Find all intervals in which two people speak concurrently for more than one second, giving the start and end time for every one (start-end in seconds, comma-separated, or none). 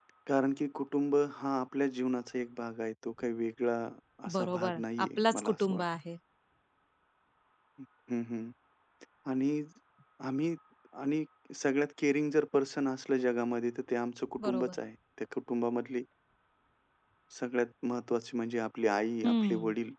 4.3-5.8